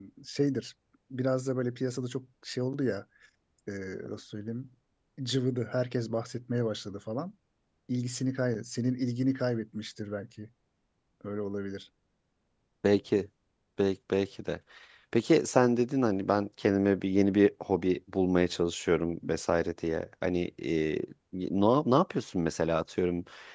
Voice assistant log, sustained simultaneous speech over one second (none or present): none